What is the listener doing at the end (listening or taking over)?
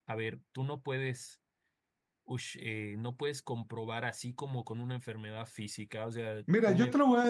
taking over